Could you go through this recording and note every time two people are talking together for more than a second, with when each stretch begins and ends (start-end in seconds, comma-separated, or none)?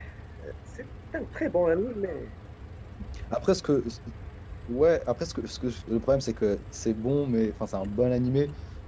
none